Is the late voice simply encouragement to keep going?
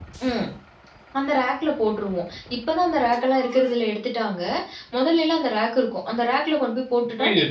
No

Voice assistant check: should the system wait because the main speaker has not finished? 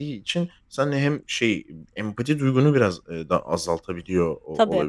Yes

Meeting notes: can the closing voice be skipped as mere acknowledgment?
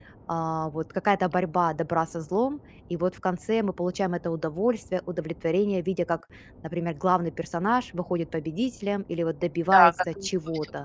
No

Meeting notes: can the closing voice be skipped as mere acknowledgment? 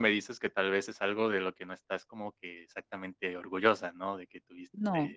Yes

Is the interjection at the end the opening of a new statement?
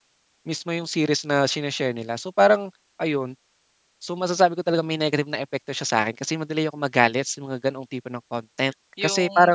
Yes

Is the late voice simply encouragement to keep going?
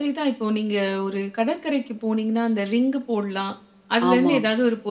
Yes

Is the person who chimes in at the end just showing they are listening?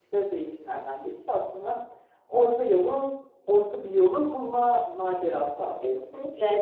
No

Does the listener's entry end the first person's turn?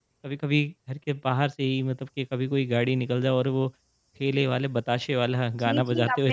Yes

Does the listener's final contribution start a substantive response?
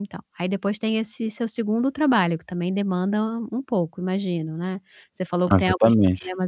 No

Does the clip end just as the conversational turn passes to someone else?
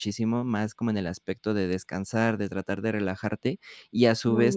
No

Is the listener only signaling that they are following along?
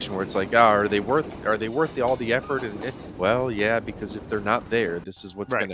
No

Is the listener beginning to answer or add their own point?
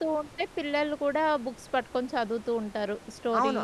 Yes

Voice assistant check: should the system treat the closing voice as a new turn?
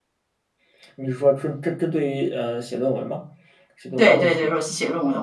Yes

